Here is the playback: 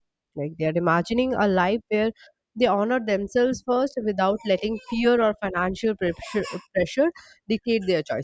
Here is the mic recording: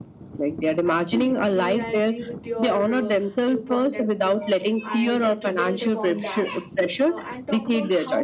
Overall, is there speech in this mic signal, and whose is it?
both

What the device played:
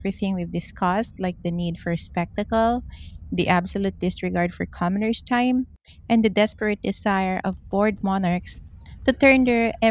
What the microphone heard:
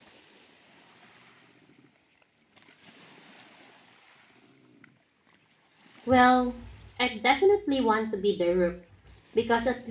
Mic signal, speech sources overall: user only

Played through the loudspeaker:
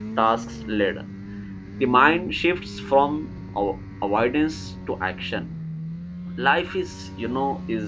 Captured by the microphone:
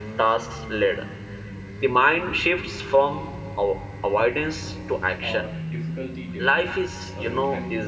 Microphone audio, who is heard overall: both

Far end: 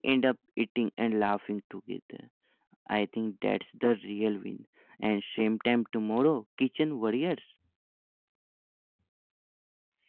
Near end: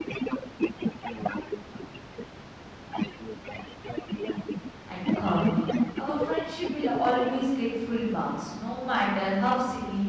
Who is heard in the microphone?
both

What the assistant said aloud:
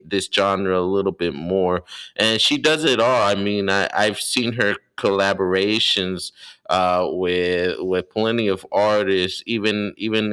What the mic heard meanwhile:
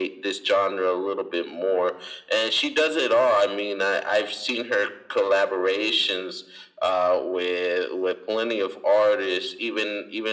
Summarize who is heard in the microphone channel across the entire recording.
echo only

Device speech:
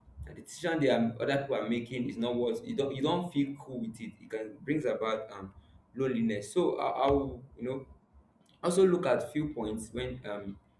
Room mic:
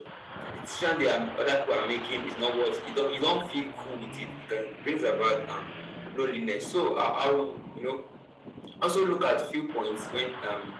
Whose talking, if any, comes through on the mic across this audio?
echo only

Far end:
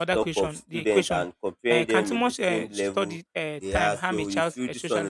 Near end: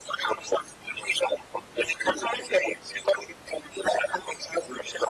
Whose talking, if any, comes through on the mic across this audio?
echo only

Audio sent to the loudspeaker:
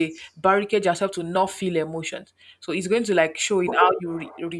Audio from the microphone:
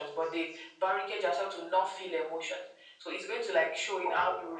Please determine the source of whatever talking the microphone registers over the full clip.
echo only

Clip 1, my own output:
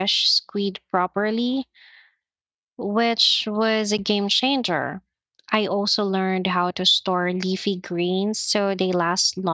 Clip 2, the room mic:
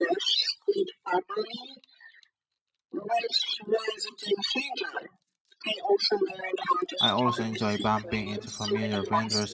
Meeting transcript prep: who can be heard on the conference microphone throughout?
both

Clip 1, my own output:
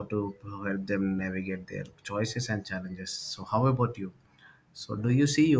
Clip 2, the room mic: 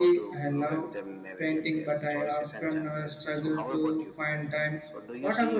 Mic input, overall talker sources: both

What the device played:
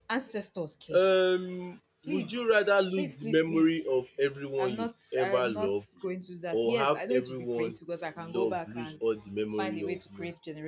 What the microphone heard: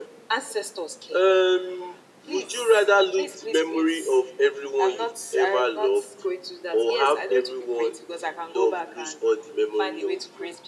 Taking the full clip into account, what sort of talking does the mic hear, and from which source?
echo only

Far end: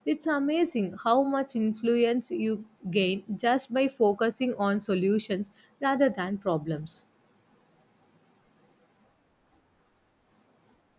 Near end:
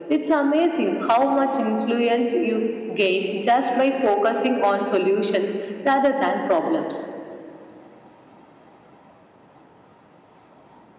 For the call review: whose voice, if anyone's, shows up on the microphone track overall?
echo only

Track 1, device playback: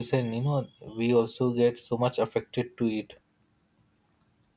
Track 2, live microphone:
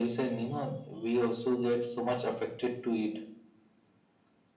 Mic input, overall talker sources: echo only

